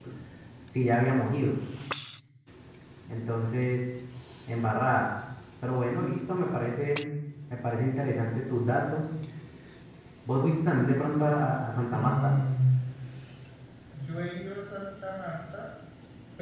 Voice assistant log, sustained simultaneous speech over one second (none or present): none